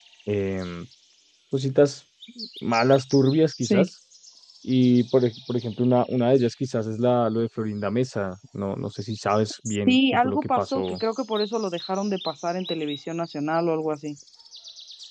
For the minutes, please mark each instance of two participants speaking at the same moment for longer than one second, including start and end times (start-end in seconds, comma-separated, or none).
9.7-11.0